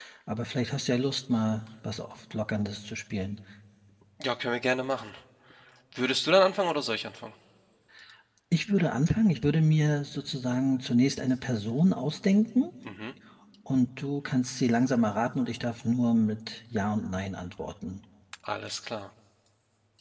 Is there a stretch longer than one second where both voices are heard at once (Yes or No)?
No